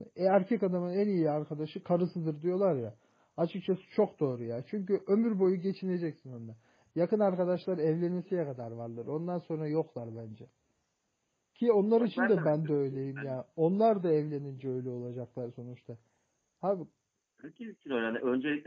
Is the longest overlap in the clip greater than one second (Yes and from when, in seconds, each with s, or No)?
Yes, from 12.0 s